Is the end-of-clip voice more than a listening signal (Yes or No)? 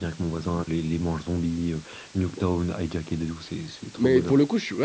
Yes